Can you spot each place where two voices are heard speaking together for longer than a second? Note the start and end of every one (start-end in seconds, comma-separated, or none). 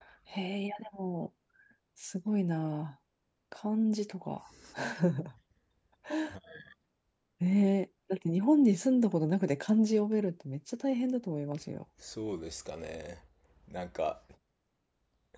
none